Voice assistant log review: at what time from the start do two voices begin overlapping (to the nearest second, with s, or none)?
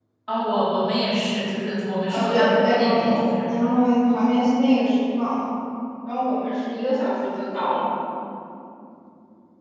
2 s